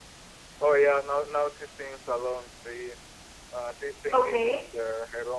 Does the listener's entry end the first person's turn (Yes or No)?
No